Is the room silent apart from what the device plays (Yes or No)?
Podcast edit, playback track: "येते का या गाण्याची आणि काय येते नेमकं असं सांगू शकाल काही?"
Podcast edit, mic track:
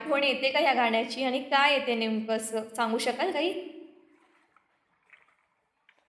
Yes